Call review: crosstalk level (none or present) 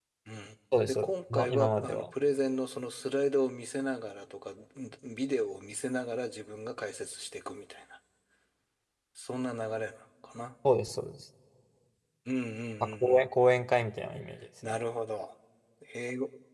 present